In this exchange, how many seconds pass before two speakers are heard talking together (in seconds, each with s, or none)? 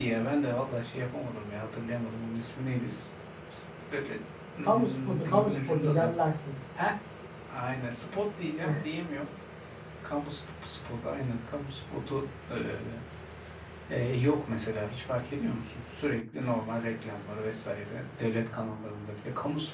4.6 s